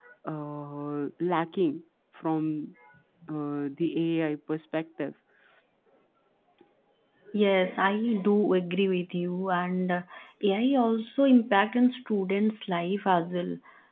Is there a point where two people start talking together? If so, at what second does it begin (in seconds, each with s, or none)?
none